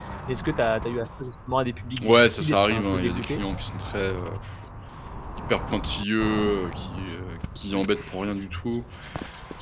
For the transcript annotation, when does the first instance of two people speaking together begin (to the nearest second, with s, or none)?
2 s